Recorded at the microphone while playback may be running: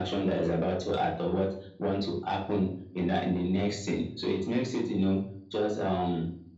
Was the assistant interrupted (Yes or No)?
No